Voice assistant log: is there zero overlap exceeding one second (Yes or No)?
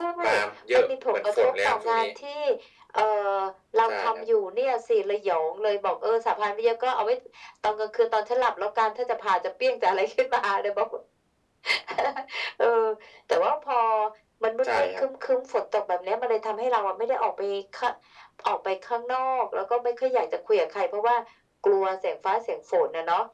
No